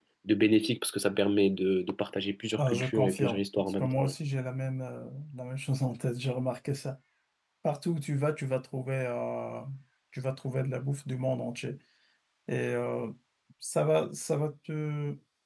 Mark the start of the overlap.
3 s

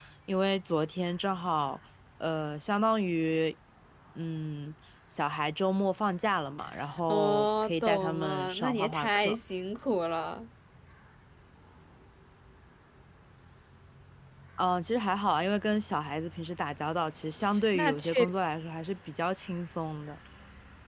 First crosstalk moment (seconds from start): 7 s

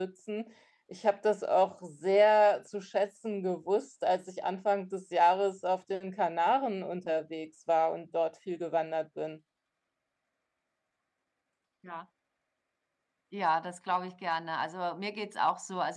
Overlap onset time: none

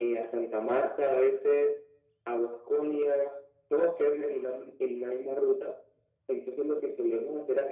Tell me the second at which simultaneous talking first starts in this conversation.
none

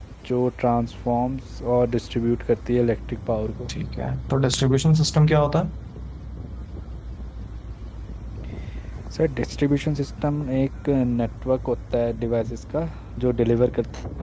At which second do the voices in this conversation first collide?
none

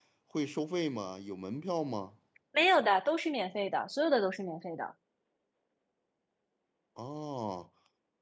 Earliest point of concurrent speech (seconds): none

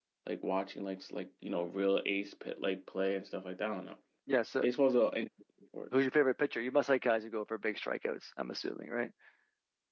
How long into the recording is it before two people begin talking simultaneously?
none

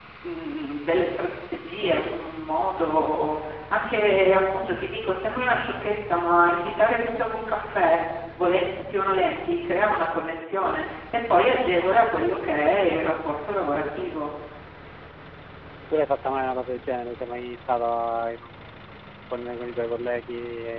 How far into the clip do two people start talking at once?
none

